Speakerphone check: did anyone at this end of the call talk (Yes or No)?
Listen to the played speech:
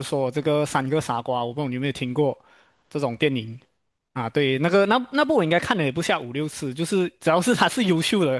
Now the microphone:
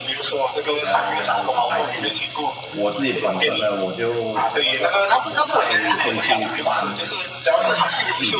Yes